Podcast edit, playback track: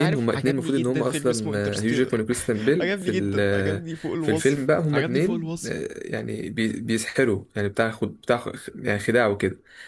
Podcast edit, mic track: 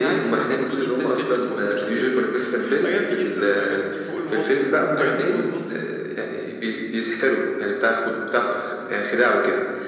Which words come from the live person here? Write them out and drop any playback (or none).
none